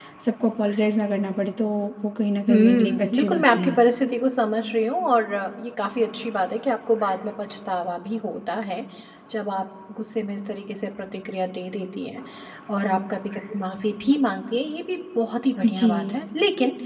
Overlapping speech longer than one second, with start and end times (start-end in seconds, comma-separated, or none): 2.5-3.8